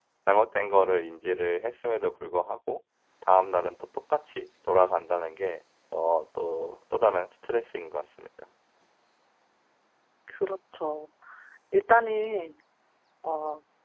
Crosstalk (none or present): none